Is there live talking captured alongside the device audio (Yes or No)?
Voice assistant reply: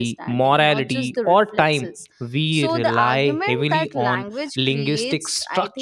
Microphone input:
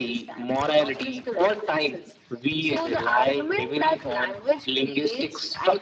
No